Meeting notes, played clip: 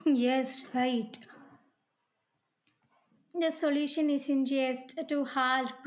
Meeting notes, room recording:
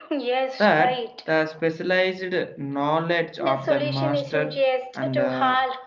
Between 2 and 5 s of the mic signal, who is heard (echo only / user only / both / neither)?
both